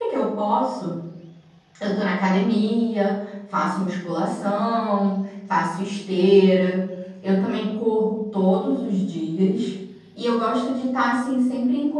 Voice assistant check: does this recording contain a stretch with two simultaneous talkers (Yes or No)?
No